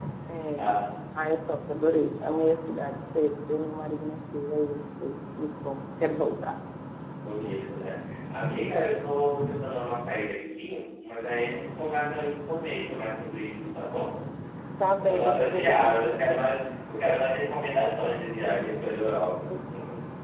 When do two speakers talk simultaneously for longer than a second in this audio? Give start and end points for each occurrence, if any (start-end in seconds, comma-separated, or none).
15.0-16.4